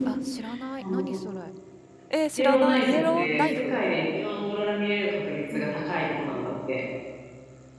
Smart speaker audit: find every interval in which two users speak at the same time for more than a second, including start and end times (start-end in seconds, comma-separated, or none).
2.4-3.8